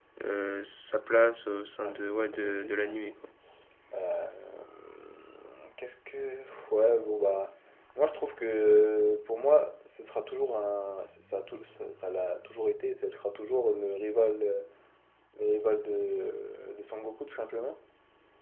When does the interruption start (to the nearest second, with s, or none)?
2 s